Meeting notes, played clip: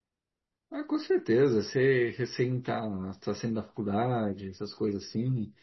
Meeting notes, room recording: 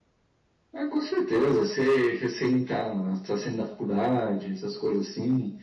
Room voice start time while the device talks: none

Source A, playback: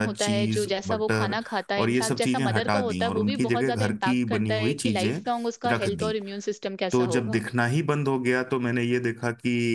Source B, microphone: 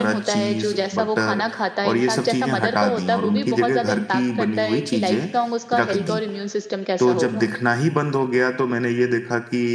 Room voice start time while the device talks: none

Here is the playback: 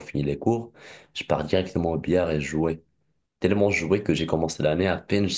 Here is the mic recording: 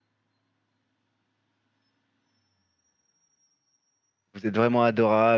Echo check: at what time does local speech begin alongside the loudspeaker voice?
4.3 s

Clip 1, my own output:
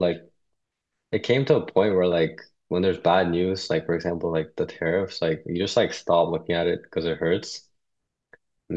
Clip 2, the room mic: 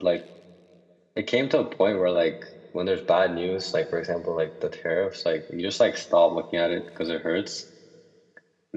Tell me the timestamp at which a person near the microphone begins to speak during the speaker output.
none

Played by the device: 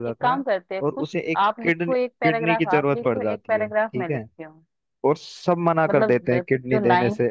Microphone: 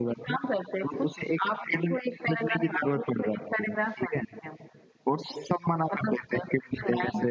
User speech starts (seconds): none

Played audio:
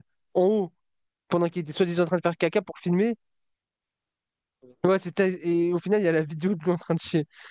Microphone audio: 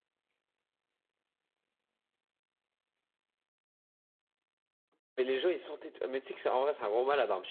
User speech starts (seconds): 5.2 s

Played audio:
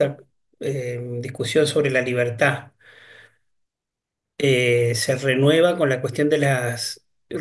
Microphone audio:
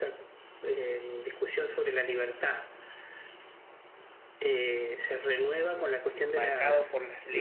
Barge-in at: 6.3 s

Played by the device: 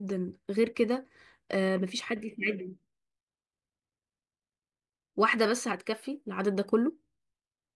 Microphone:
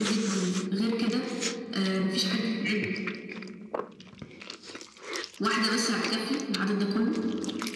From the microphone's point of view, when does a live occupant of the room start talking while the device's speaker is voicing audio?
none

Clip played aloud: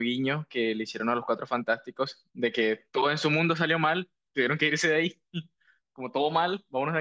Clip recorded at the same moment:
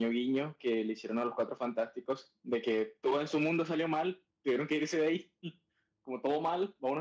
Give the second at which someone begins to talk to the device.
none

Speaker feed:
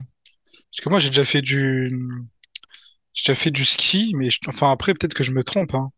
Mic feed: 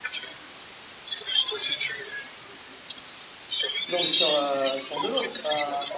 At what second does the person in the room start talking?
3.9 s

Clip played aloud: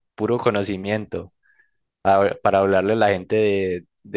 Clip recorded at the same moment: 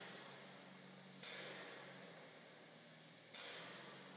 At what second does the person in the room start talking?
none

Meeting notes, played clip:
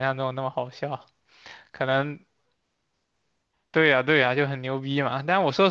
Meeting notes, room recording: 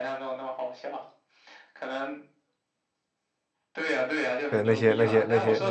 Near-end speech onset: 4.5 s

